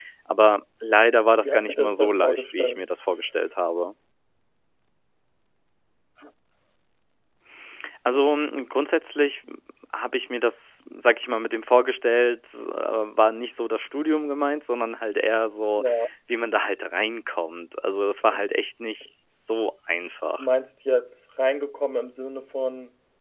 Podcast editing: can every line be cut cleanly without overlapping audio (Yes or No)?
No